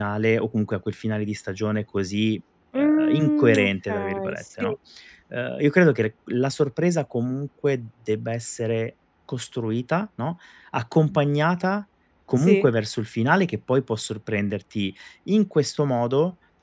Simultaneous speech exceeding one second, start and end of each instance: 2.8-4.7

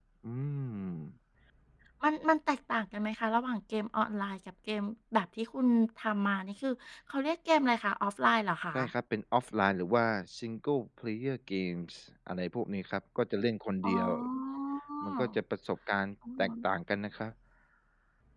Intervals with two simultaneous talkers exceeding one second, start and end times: none

